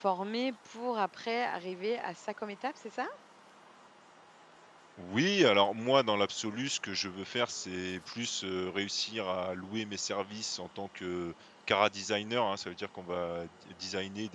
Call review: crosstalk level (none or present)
none